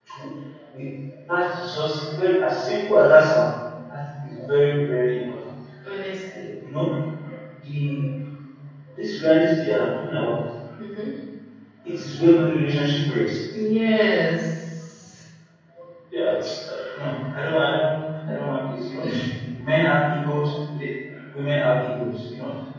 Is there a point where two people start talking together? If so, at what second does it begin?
none

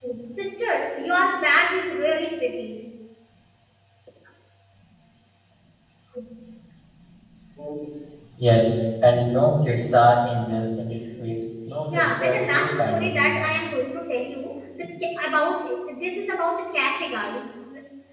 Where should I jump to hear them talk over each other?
11.9 s

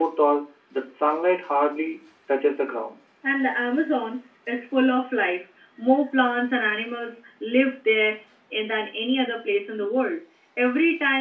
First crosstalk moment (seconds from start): none

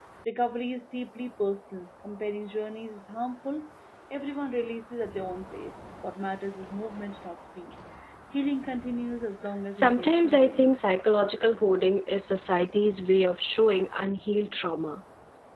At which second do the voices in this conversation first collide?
9.7 s

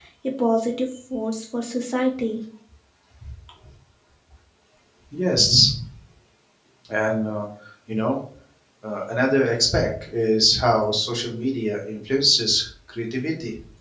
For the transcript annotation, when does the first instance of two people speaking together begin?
none

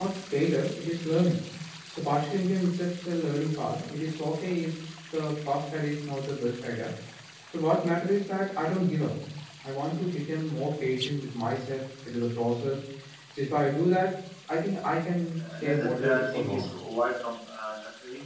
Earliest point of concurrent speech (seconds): 15.4 s

